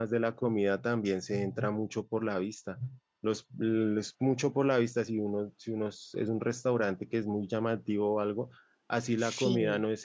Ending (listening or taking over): listening